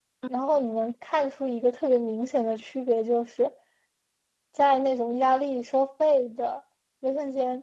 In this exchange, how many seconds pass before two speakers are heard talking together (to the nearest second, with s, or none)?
none